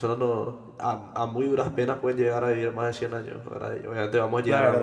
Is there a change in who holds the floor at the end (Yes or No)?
Yes